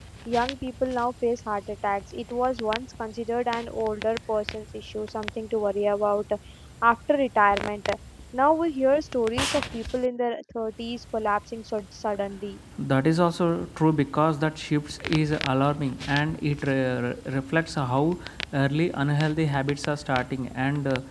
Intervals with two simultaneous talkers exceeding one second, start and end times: none

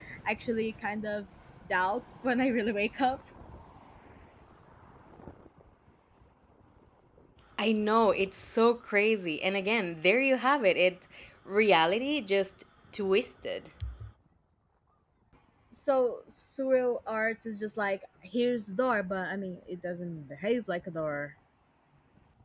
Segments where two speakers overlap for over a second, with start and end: none

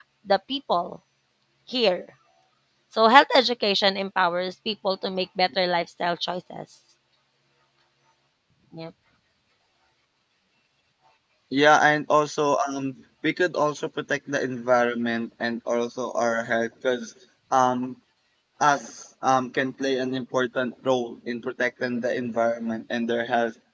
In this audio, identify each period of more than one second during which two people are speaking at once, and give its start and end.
none

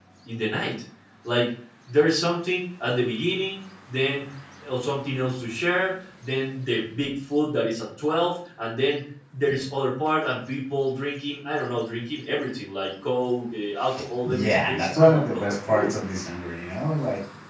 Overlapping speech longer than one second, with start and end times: 14.2-15.9

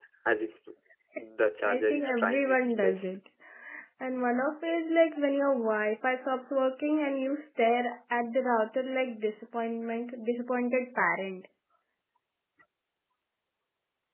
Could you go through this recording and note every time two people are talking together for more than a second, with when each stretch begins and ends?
1.6-3.1

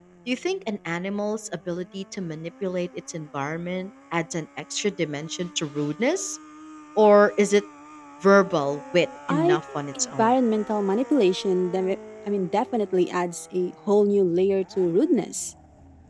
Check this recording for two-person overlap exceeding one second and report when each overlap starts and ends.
8.7-10.3

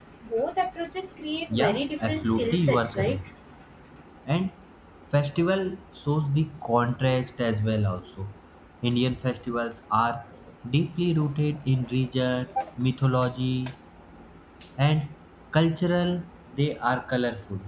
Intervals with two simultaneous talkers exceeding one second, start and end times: 1.5-3.2

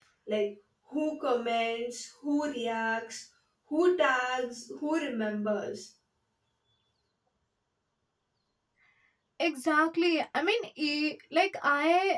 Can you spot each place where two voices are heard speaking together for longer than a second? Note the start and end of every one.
none

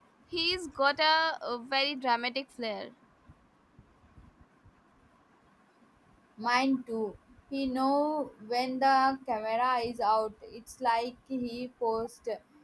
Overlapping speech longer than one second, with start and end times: none

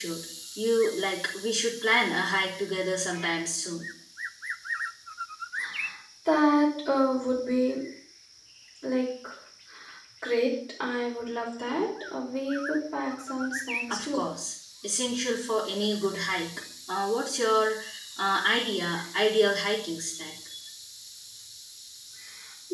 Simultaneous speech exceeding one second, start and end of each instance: none

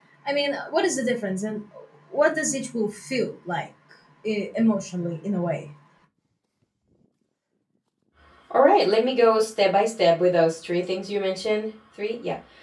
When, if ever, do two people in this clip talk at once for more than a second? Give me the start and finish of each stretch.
none

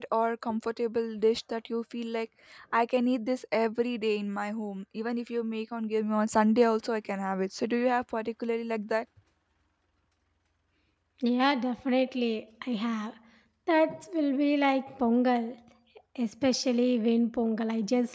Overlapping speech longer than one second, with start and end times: none

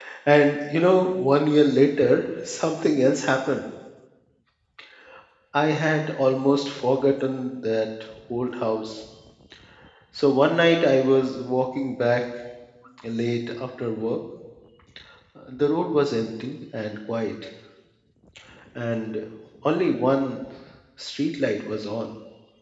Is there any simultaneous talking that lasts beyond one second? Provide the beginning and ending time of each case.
none

